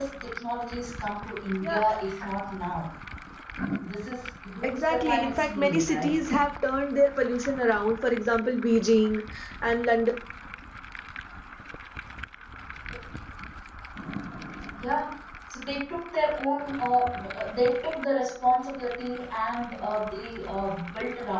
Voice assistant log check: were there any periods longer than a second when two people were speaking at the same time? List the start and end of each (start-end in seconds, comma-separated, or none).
4.6-6.2